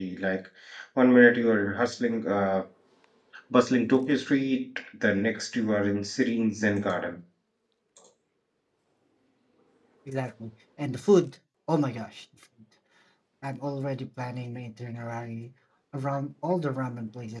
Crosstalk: none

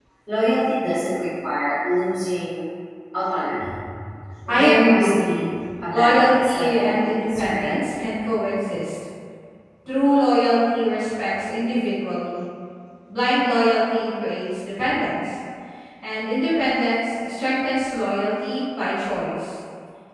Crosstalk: present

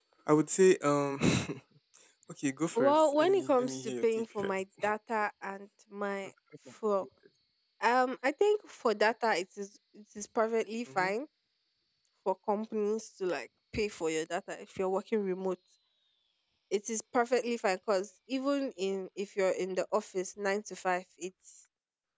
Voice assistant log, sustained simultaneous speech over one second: present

